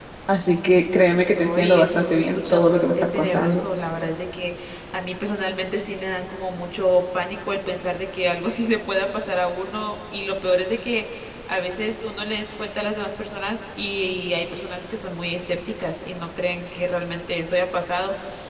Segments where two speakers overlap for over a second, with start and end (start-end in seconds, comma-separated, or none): 1.6-3.6